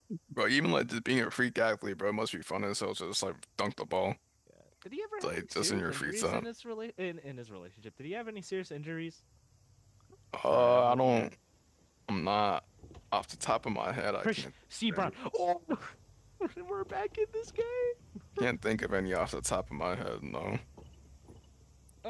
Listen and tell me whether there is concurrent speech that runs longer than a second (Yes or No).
Yes